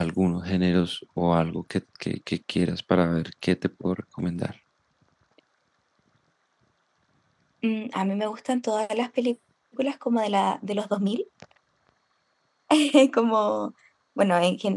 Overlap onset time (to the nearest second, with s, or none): none